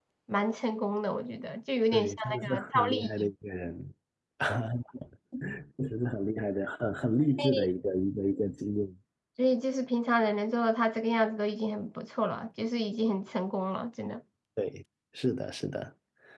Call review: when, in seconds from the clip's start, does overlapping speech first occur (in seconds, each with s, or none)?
1.9 s